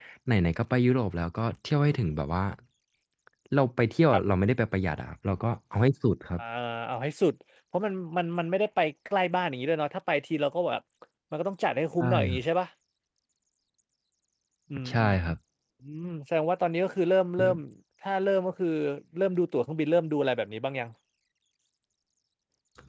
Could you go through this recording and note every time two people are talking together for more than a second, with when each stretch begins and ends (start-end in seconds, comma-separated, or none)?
none